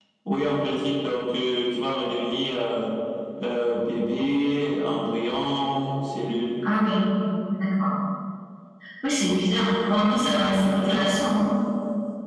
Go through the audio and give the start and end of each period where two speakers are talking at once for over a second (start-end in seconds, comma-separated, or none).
10.0-11.3